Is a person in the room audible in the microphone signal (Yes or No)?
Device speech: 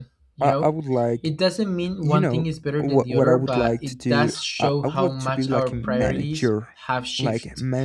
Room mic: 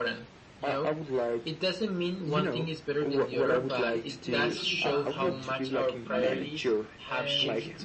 Yes